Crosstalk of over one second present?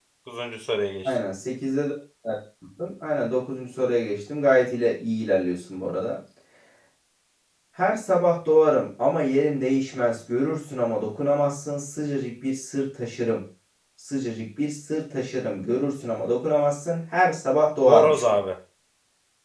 No

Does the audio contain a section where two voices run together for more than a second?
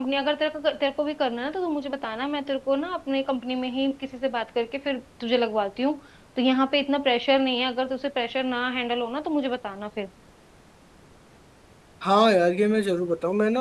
No

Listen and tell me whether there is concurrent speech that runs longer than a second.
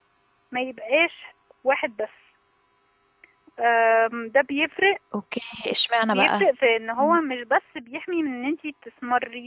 No

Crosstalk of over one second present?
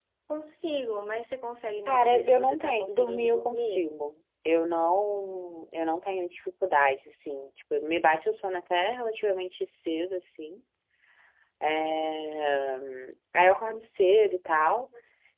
Yes, from 1.9 s

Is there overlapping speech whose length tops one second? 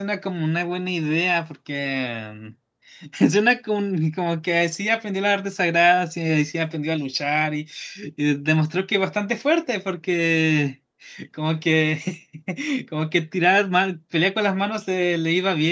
No

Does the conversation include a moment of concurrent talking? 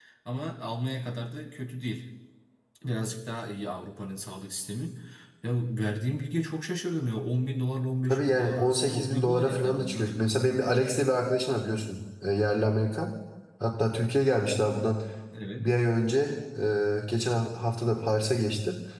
Yes, from 8.1 s

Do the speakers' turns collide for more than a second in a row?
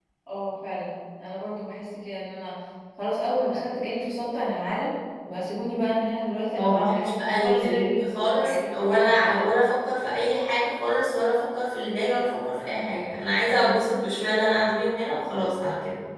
Yes, from 6.6 s

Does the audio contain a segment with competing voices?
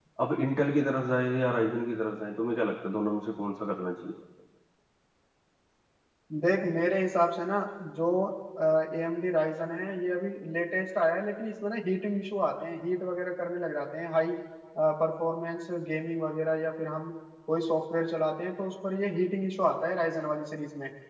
No

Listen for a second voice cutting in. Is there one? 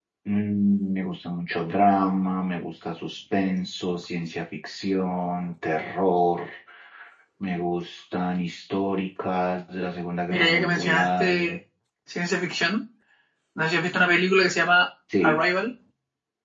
Yes, from 10.3 s

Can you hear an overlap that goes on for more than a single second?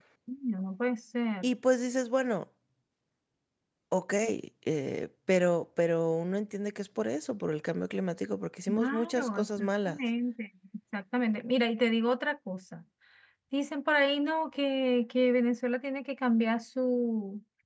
Yes, from 8.7 s

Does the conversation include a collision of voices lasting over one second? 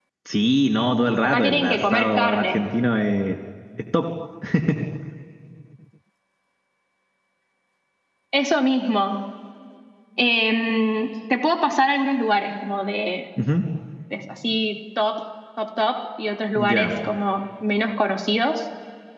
Yes, from 1.2 s

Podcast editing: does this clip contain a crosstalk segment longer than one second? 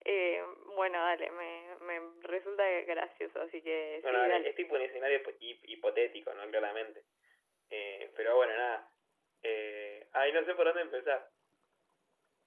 No

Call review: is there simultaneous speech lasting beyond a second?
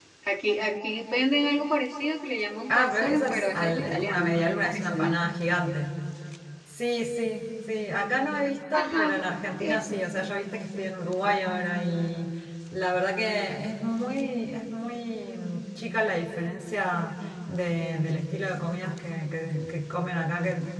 Yes, from 2.7 s

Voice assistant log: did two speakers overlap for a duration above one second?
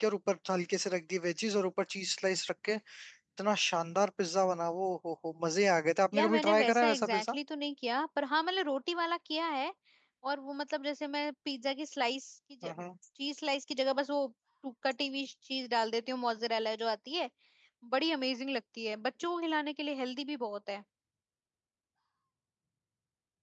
Yes, from 6.1 s

